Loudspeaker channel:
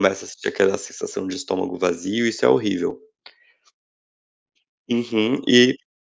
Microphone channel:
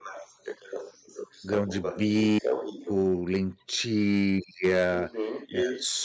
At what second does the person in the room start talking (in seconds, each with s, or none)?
1.4 s